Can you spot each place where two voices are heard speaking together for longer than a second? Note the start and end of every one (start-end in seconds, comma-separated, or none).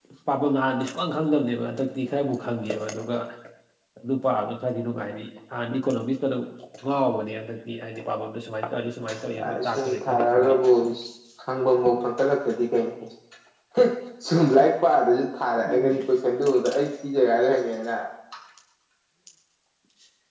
9.3-10.5